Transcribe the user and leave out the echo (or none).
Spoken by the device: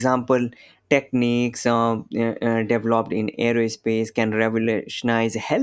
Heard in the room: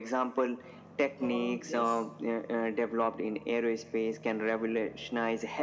thought on this